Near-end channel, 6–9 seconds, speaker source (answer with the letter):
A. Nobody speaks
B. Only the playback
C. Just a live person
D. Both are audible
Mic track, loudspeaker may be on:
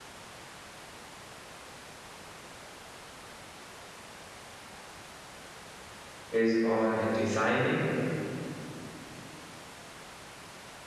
C